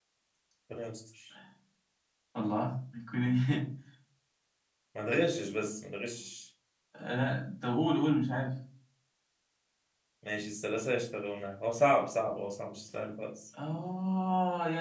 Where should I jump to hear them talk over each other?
none

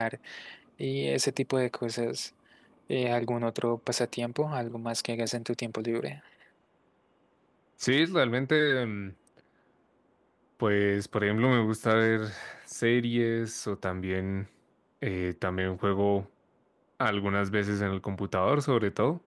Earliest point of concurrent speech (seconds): none

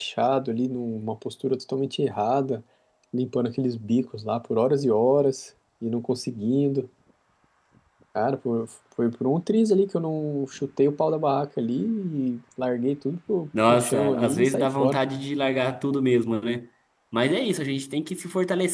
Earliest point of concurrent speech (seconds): 13.5 s

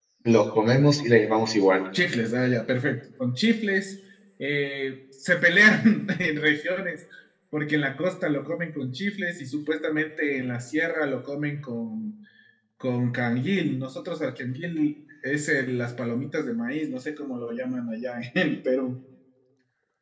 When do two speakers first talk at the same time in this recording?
none

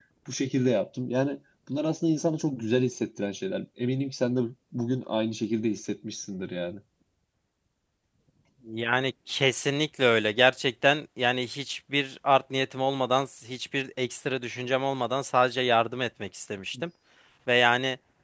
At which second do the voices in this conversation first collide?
none

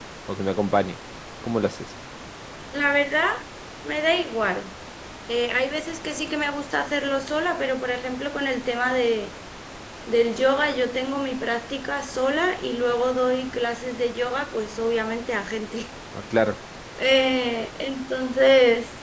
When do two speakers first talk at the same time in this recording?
none

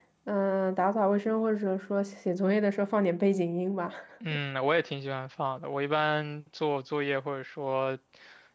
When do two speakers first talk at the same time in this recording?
none

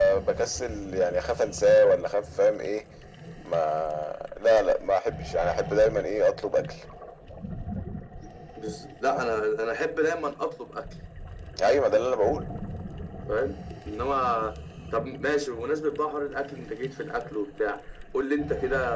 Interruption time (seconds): none

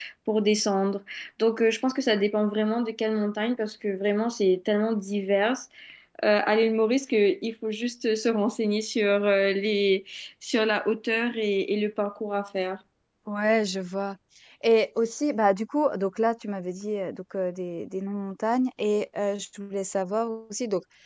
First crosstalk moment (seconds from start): none

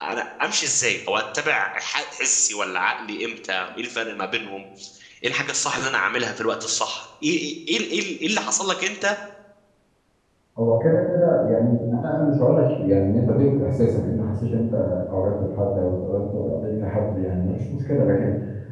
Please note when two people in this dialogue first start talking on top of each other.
none

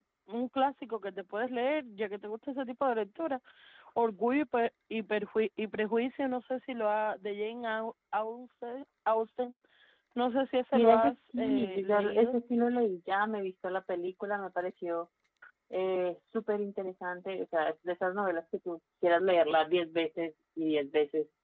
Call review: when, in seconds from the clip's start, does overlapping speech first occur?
10.7 s

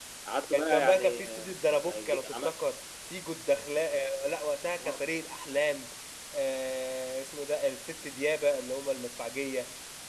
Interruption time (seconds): 0.5 s

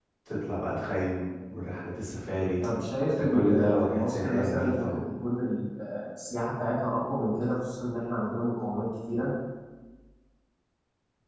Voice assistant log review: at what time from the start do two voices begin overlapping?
3.1 s

